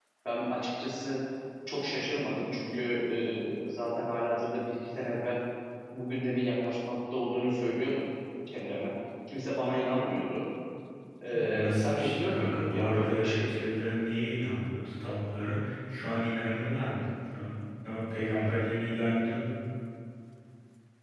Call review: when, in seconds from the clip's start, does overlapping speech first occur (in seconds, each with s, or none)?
11.5 s